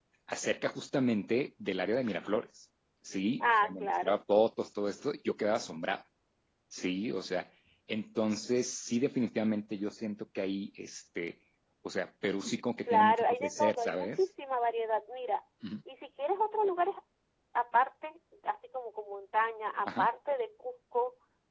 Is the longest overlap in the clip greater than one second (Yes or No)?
Yes